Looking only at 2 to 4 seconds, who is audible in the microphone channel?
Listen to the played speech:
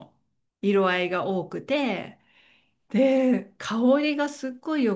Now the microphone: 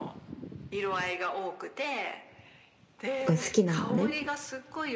both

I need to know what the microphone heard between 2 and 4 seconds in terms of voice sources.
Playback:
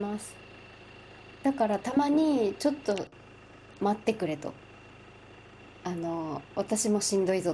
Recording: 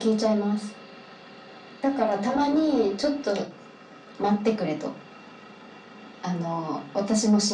echo only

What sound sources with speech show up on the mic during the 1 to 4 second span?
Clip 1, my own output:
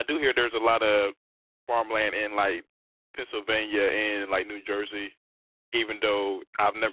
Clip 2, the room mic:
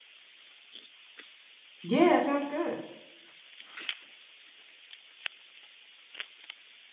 user only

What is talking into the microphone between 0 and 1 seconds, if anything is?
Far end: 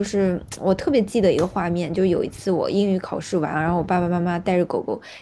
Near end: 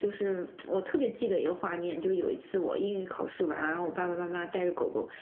echo only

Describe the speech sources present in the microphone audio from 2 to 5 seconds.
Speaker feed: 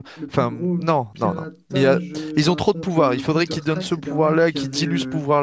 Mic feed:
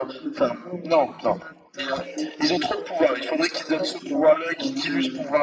echo only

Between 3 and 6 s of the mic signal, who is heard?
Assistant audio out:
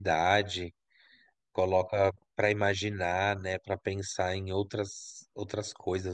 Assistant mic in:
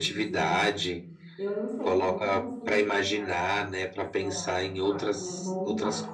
both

